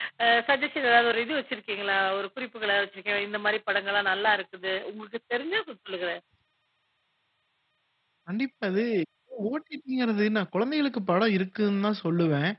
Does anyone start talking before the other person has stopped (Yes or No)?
No